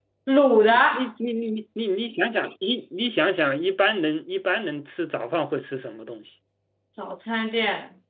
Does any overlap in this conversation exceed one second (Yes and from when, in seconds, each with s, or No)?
No